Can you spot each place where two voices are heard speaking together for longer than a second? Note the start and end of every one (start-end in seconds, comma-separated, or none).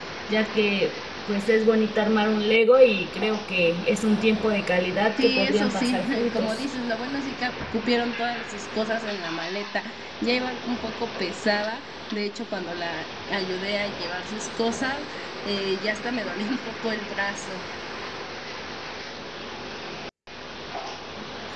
5.2-6.6